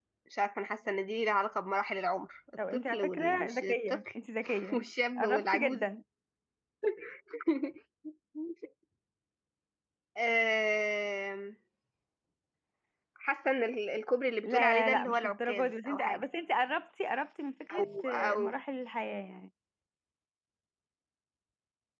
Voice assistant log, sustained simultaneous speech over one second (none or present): present